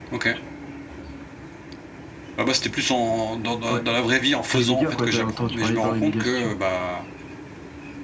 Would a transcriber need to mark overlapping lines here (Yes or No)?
Yes